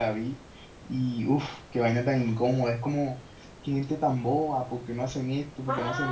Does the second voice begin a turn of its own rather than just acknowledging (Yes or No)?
Yes